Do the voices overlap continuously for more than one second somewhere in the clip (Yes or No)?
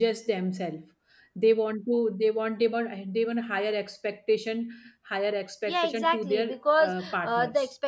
Yes